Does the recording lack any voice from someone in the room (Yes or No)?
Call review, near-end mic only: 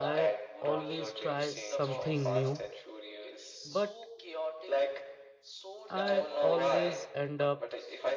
No